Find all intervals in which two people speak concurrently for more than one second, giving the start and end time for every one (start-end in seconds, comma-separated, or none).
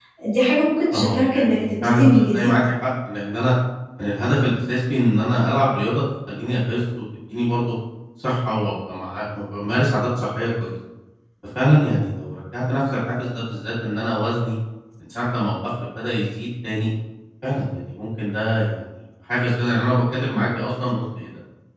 0.9-2.5